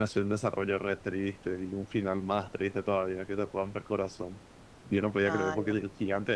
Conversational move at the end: listening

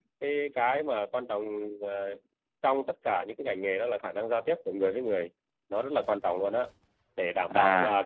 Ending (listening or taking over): listening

